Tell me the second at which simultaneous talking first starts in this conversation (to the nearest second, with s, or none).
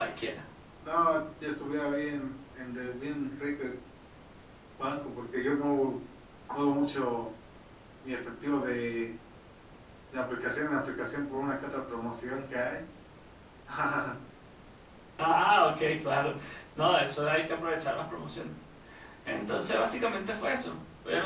none